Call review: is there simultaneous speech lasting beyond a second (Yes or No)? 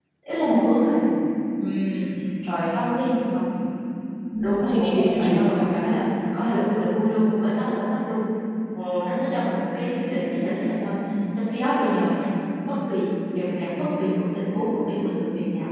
Yes